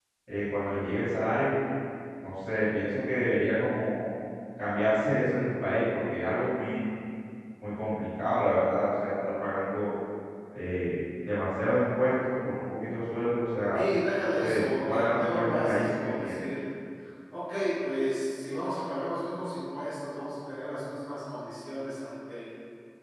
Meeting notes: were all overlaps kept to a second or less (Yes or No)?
No